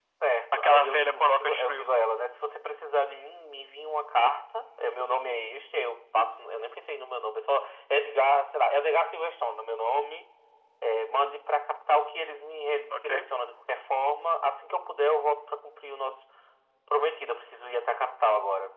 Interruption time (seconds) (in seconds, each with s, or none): 0.5 s